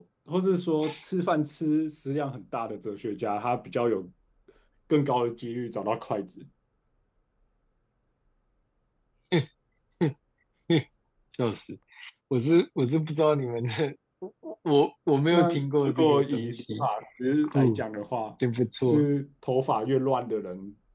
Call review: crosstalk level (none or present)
present